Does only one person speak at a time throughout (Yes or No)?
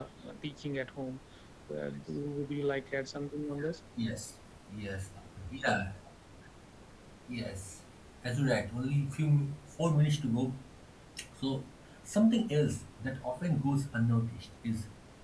Yes